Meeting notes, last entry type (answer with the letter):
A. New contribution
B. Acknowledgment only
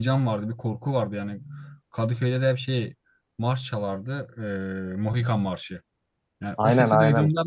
B